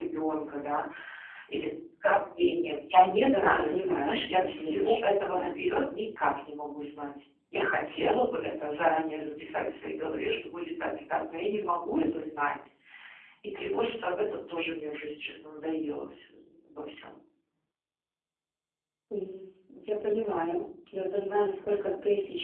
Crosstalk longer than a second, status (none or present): present